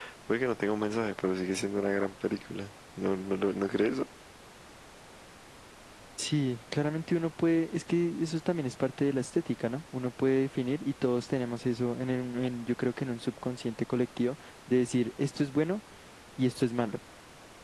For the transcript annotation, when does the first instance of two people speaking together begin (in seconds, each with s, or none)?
none